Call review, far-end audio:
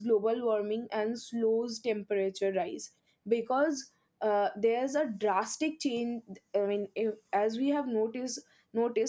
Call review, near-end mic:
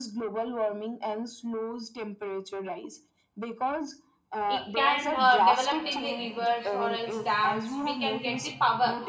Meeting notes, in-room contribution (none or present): present